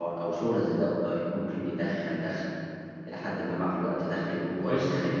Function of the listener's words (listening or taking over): listening